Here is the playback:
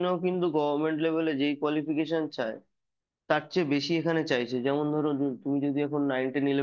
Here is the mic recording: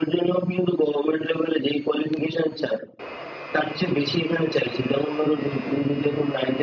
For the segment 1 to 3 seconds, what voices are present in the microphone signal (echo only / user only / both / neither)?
echo only